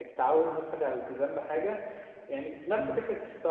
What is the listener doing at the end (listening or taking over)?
listening